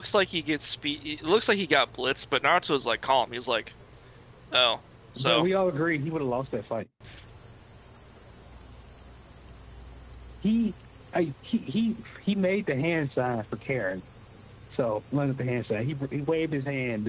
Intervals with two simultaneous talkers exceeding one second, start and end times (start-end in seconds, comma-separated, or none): none